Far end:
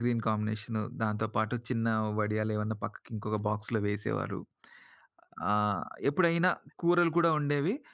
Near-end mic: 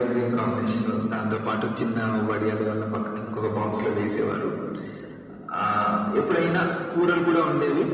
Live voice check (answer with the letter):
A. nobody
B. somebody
A